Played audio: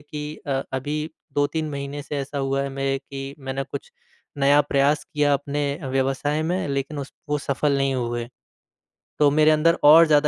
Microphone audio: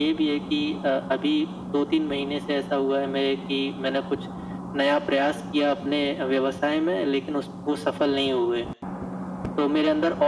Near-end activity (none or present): none